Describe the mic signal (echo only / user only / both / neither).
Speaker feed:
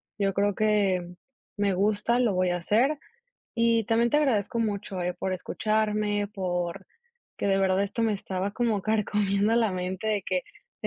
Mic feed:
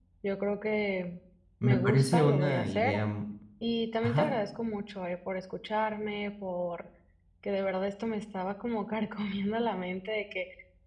both